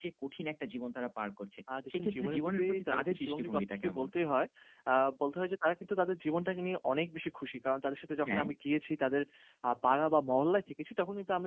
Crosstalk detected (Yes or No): Yes